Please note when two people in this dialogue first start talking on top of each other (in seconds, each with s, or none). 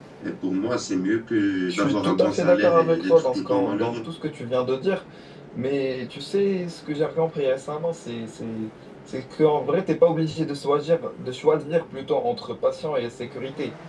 1.7 s